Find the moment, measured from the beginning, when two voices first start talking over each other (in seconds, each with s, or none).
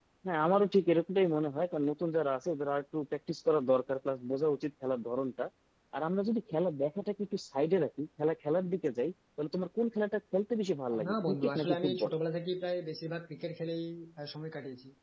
10.9 s